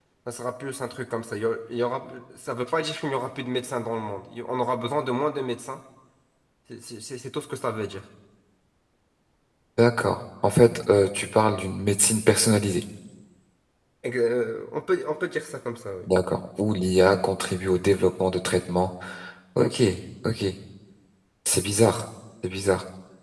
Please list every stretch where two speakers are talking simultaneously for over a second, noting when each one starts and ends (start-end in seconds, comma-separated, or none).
none